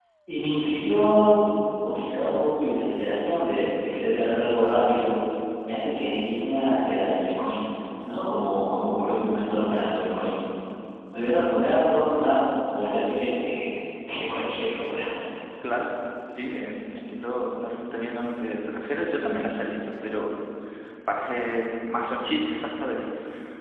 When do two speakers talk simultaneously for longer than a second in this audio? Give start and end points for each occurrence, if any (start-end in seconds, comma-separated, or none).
none